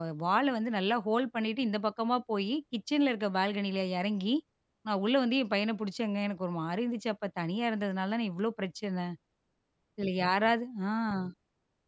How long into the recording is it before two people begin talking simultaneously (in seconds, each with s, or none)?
none